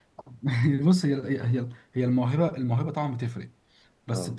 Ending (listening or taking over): listening